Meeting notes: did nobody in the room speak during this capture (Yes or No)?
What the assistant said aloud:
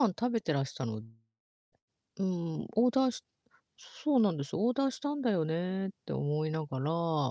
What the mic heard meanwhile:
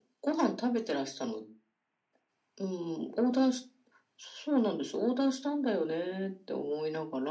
Yes